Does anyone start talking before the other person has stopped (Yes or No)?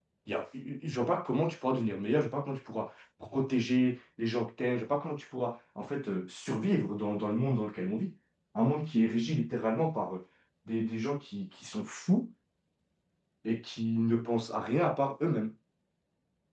No